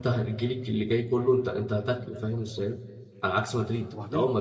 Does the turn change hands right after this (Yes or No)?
No